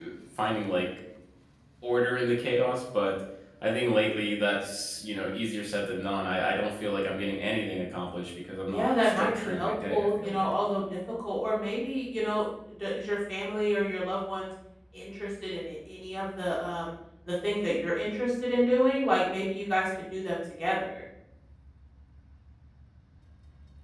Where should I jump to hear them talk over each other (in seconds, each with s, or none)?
8.7 s